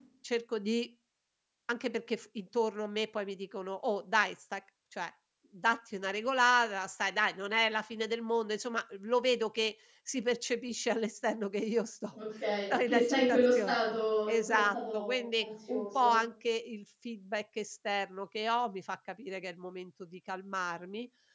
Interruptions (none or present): present